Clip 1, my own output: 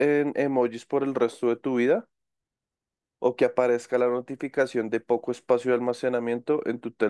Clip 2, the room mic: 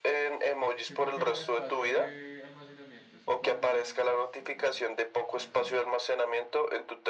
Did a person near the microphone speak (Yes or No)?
Yes